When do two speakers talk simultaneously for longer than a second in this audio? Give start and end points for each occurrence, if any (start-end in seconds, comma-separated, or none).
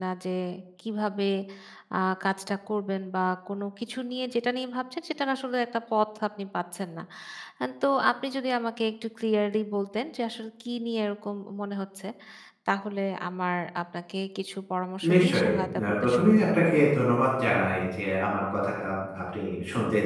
15.1-16.6